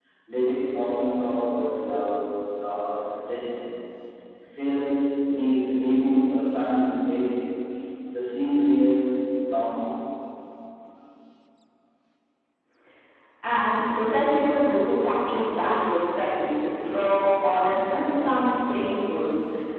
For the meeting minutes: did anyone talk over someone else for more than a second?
No

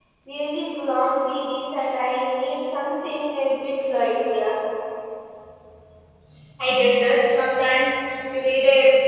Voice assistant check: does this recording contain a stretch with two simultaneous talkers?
No

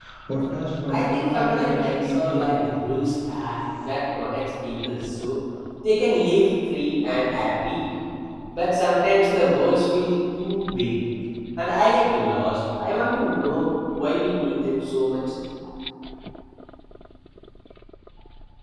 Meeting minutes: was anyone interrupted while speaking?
Yes, from 0.9 s

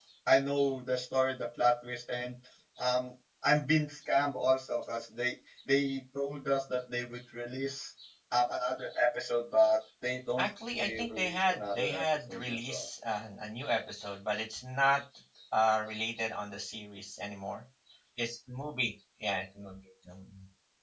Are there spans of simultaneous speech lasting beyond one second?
Yes, from 10.4 s

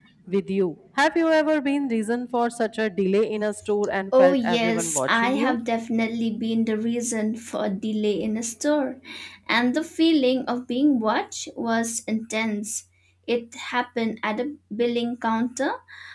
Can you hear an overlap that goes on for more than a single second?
Yes, from 4.1 s

